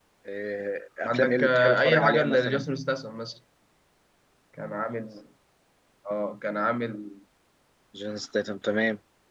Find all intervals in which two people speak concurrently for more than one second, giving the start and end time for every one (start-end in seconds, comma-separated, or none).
1.1-2.6